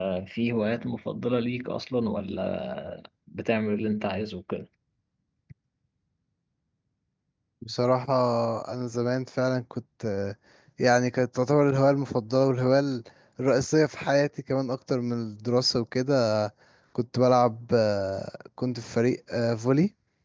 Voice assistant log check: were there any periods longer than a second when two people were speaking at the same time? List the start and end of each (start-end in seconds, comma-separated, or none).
none